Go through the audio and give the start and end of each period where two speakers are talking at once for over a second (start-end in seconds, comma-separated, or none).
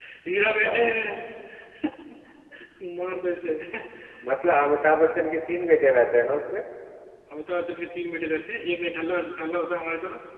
none